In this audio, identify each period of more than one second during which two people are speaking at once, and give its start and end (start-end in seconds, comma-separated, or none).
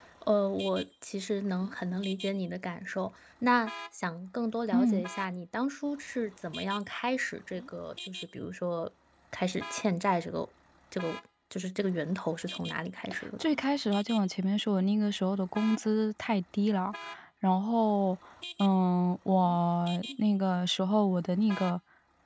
none